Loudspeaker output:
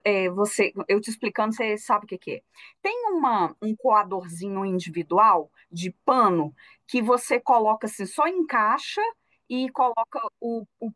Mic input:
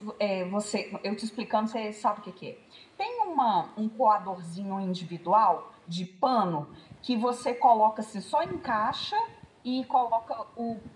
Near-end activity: none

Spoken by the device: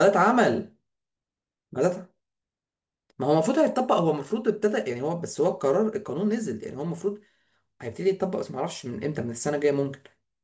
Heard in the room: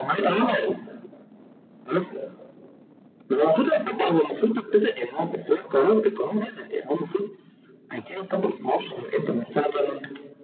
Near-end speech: none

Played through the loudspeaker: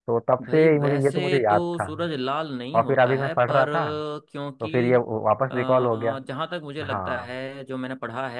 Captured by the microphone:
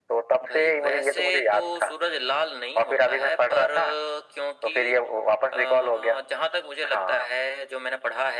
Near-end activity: none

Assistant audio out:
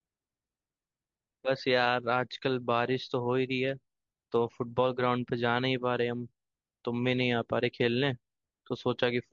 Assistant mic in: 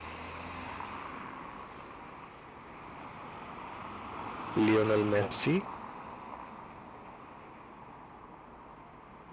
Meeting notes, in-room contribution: present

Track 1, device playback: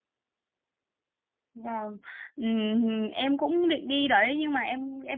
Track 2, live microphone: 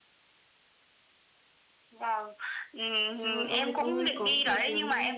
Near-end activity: present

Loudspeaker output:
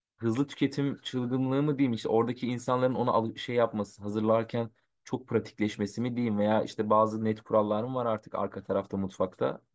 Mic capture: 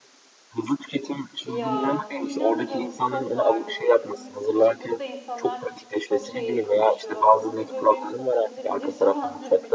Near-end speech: present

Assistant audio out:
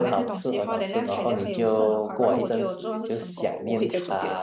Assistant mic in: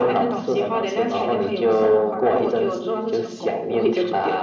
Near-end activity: none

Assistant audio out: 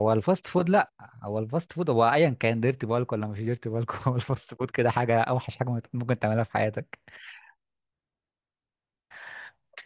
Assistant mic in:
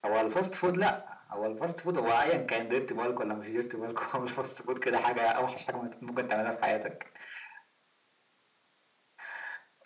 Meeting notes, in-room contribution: none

